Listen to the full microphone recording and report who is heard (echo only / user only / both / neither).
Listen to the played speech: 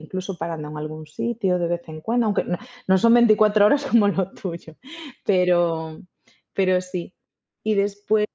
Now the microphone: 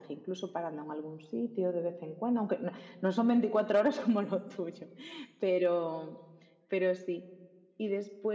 echo only